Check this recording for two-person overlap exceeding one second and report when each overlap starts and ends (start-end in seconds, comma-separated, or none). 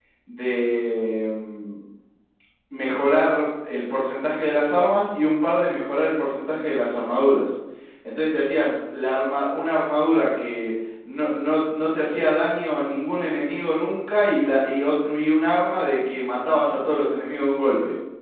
none